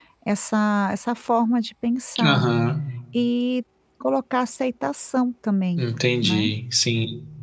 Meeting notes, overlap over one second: none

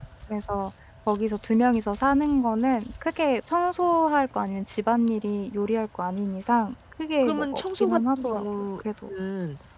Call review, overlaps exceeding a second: present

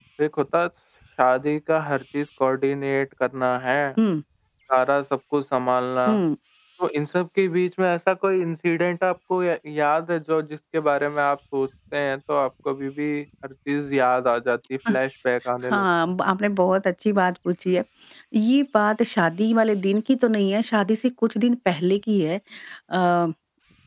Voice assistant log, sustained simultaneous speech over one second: none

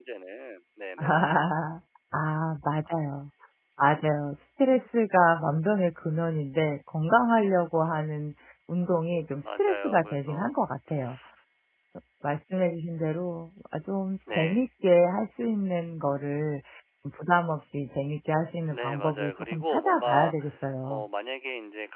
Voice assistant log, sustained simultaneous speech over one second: present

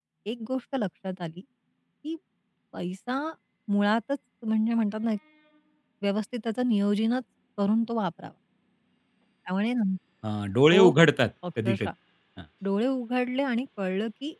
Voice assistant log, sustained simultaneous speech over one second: none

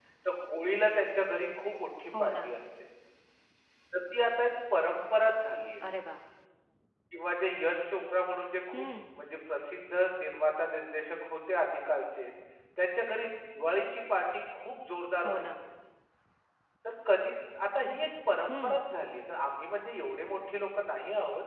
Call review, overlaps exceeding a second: none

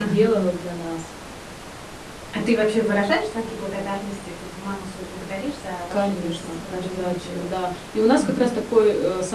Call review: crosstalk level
present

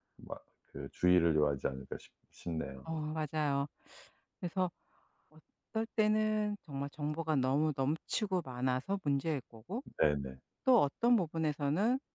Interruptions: none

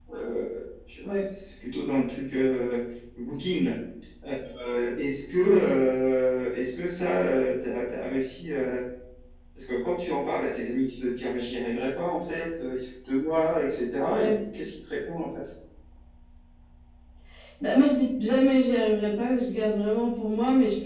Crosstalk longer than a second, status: none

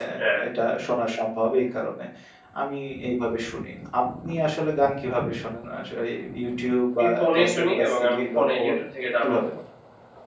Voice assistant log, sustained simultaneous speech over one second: present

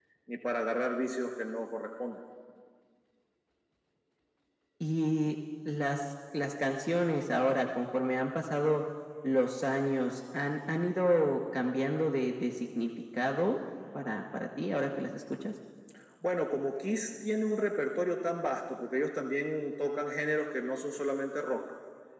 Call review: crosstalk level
none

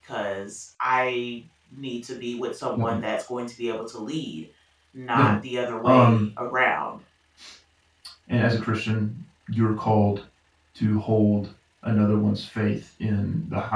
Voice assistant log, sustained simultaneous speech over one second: none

